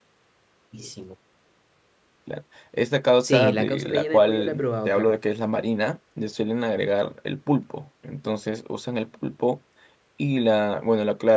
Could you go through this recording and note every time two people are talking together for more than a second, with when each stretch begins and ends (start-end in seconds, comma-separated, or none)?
3.2-5.1